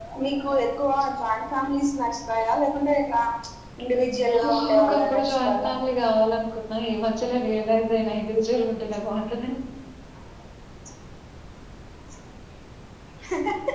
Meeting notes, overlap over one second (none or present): present